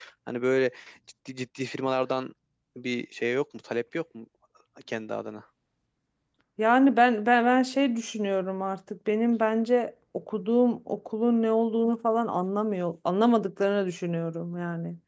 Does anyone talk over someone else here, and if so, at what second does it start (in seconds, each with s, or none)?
none